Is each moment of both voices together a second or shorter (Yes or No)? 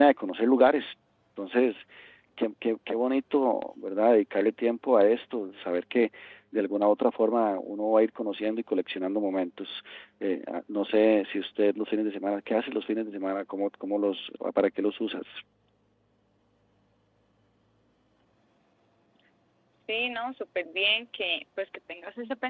Yes